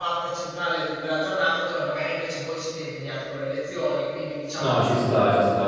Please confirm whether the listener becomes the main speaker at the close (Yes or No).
Yes